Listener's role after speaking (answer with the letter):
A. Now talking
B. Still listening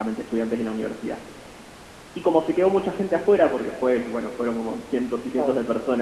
B